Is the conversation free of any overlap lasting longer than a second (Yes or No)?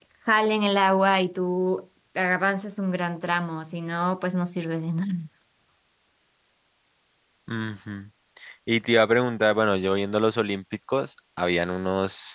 Yes